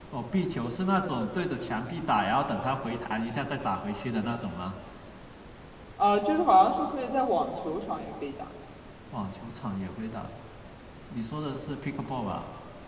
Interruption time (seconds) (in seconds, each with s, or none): none